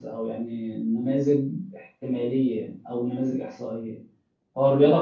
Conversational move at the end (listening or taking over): listening